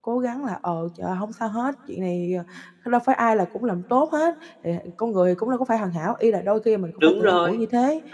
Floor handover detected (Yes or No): No